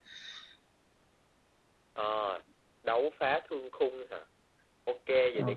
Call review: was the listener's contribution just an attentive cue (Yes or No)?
Yes